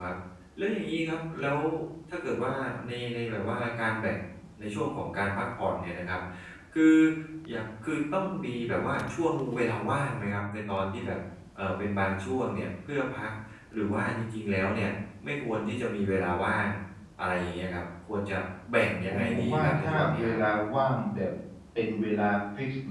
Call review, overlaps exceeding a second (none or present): present